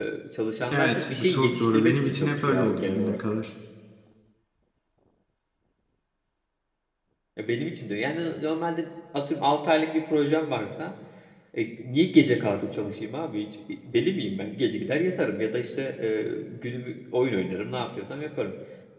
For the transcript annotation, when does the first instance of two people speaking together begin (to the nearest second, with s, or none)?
1 s